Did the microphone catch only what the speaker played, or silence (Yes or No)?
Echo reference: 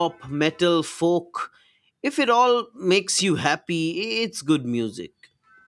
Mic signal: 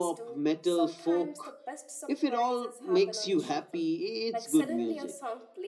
No